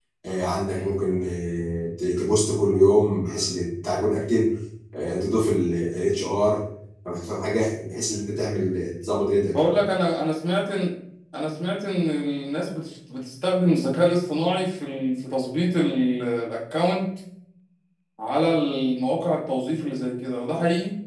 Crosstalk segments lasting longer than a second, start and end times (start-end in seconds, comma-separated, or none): none